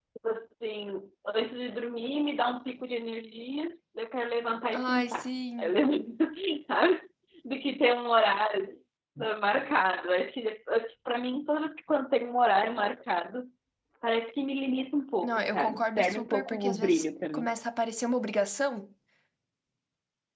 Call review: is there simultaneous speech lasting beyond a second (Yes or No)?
Yes